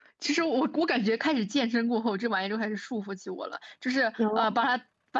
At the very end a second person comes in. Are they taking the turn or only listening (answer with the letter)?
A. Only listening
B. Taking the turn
A